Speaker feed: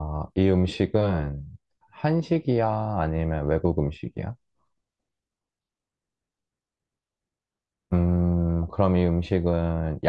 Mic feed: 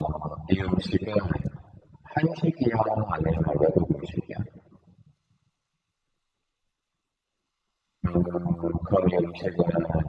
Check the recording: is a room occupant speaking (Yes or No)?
No